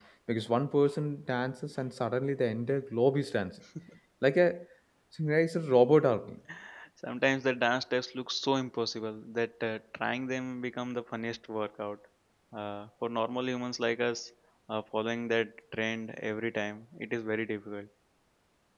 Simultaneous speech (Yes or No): No